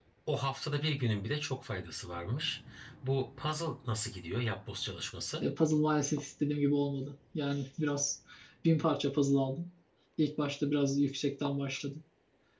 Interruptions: none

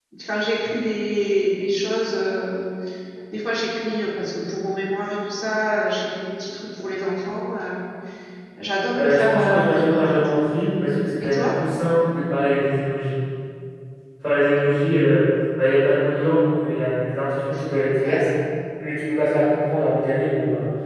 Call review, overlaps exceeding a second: present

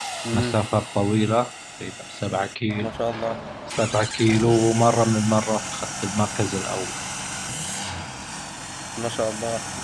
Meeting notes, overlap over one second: none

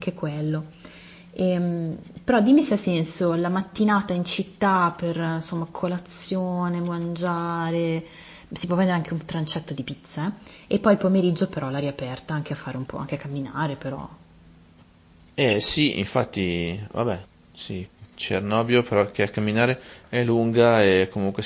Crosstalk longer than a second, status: none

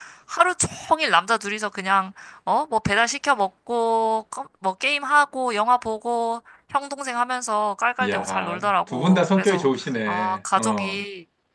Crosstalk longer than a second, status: present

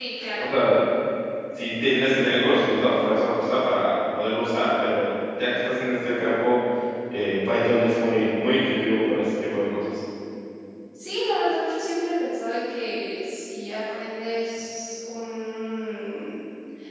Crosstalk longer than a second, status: none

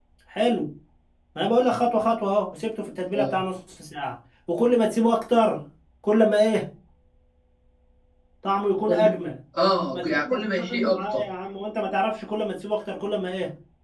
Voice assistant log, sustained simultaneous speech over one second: present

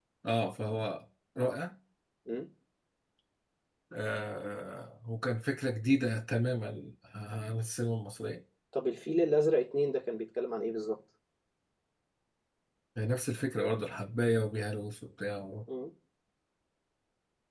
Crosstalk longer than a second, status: none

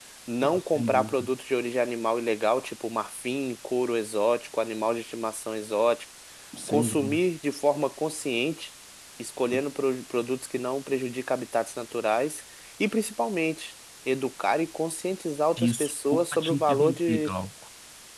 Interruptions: present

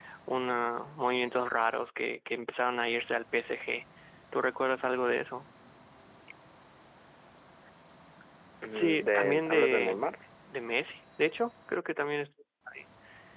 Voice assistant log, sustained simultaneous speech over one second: present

